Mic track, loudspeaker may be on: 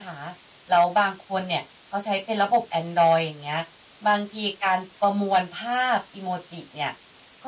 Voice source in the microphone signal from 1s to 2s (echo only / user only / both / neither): echo only